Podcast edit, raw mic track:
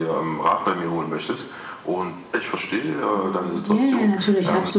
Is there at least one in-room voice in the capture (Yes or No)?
Yes